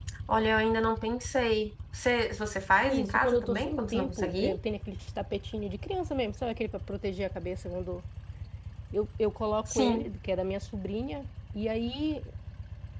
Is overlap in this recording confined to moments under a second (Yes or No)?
No